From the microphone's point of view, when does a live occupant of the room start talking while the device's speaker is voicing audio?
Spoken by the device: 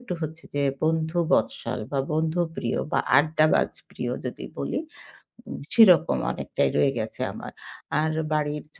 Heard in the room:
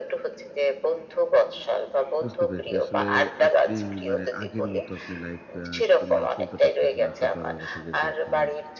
2.2 s

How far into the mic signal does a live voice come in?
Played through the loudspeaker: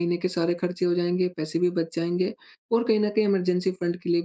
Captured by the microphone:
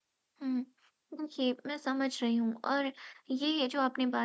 0.4 s

